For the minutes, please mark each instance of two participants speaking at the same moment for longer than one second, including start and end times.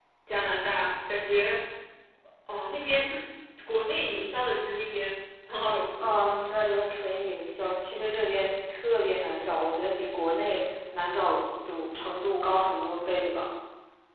none

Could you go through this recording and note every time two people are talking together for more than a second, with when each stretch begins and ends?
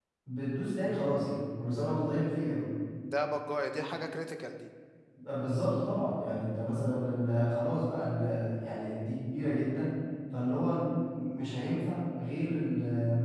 none

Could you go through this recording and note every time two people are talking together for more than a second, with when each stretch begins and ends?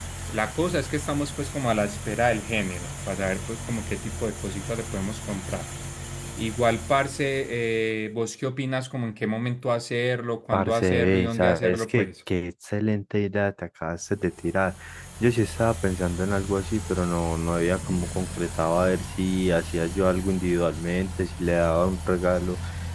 10.5-12.1

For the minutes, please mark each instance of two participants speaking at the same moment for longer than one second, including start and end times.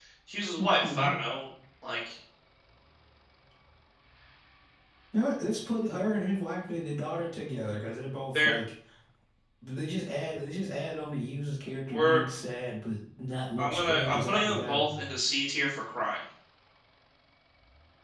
13.6-14.8

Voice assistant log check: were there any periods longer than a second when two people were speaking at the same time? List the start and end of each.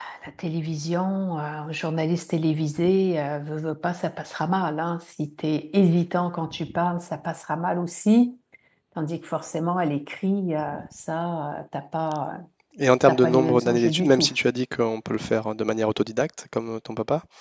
13.1-14.3

